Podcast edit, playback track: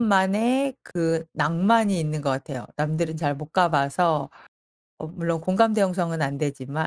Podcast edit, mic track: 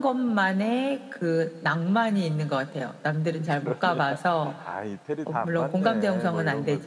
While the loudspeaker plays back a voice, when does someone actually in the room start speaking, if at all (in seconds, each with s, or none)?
3.4 s